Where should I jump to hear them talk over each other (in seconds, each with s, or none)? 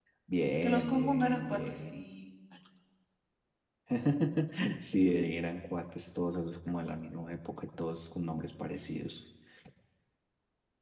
0.6 s